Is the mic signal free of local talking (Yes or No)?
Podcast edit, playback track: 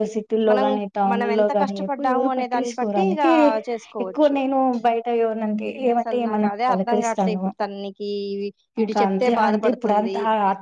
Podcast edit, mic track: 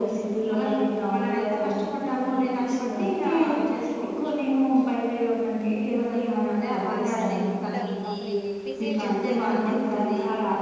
No